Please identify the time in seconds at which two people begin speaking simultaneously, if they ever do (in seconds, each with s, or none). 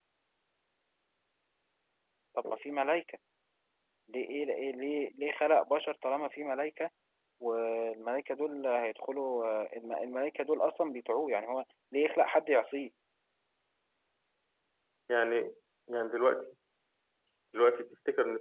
none